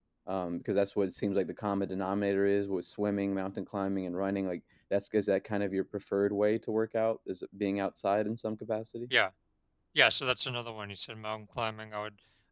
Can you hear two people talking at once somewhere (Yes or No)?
No